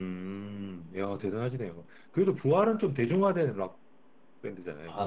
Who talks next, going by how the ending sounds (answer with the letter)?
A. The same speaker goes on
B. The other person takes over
B